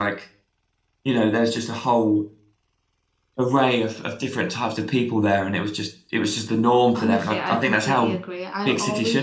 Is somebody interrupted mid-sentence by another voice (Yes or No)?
Yes